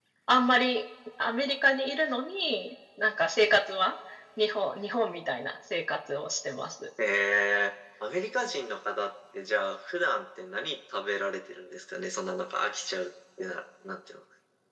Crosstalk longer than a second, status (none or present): none